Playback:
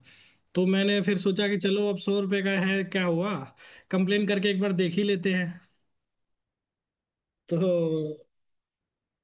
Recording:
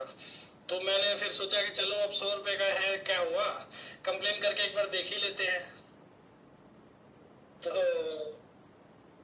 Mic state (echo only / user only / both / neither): echo only